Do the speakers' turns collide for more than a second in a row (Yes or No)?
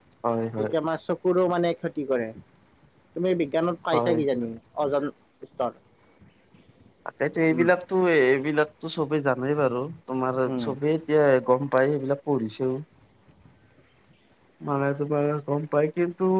No